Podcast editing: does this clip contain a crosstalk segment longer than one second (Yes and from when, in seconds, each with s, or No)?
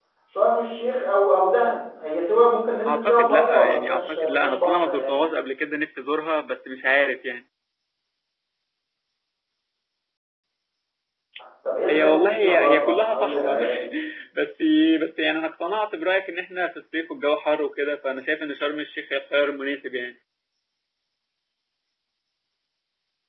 Yes, from 2.9 s